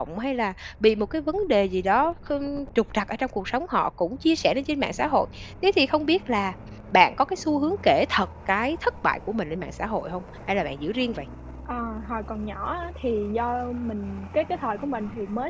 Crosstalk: none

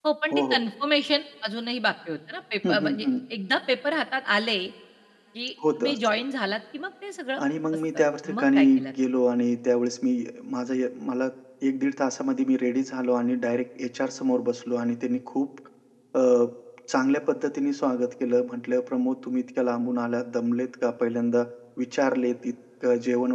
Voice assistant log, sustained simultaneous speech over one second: present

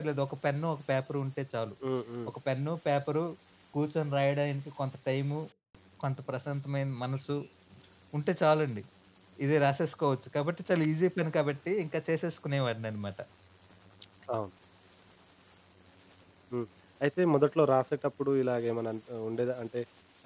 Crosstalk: none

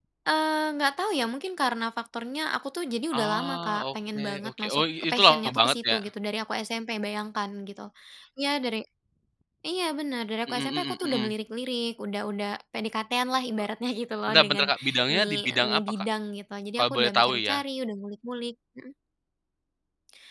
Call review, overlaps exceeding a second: present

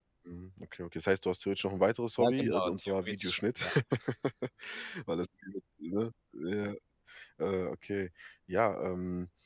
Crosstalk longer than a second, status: present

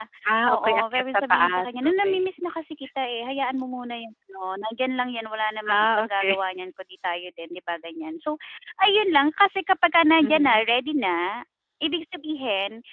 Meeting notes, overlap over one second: present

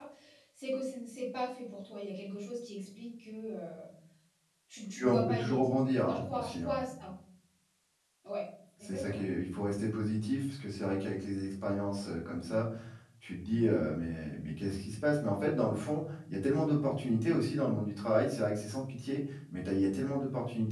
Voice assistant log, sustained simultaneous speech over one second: present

